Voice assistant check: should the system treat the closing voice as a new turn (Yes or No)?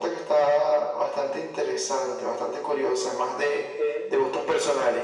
No